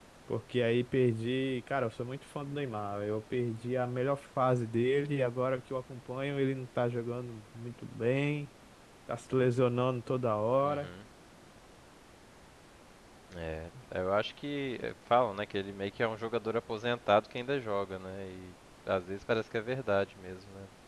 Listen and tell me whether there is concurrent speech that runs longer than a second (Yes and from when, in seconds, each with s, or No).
No